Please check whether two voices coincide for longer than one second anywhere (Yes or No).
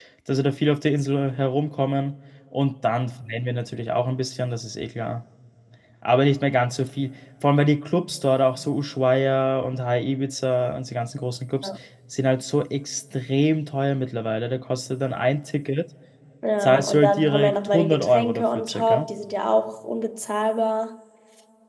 Yes